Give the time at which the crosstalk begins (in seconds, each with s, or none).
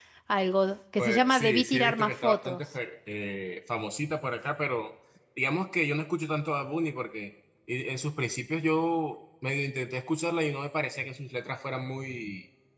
1.0 s